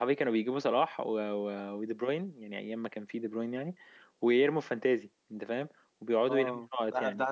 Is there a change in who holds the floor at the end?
Yes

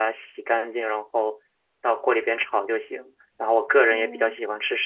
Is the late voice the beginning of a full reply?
No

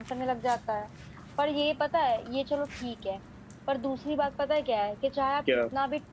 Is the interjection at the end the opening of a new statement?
No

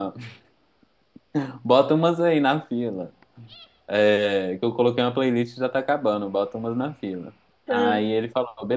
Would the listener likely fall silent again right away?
Yes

